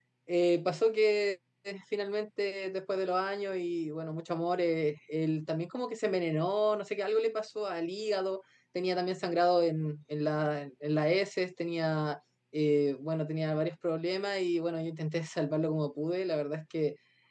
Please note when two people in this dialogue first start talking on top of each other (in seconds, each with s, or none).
none